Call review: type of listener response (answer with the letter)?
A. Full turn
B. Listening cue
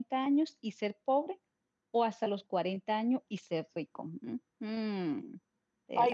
A